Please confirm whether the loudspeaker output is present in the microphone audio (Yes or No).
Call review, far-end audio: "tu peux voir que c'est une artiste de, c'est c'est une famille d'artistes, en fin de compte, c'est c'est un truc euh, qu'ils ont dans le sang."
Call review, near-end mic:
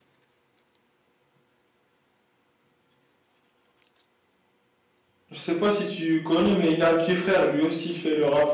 No